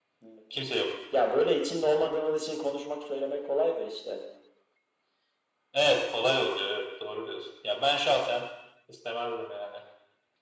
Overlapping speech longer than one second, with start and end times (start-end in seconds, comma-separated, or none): none